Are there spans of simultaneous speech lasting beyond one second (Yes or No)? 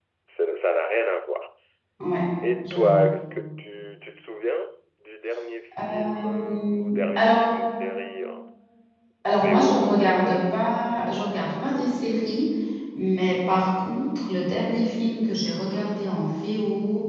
Yes